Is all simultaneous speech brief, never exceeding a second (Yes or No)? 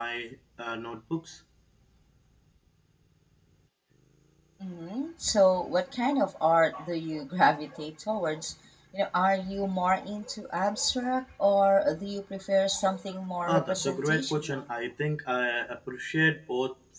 No